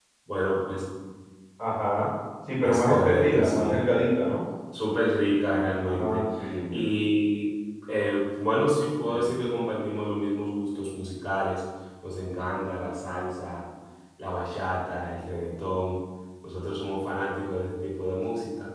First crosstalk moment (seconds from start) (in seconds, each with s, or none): 2.6 s